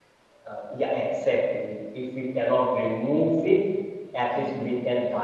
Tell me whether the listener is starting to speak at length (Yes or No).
No